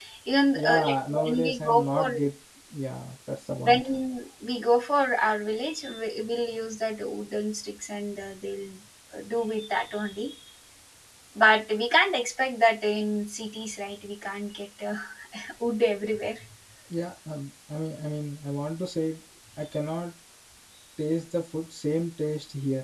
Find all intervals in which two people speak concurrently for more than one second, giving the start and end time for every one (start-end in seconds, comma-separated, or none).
0.5-2.1